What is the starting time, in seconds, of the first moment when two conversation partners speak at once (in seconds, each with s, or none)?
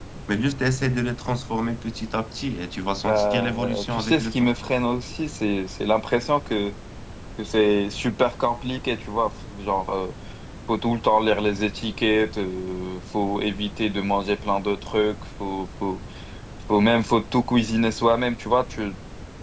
3.1 s